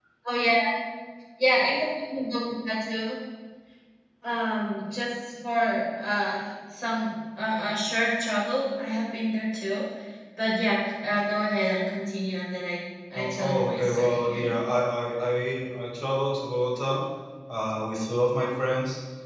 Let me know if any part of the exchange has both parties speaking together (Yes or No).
Yes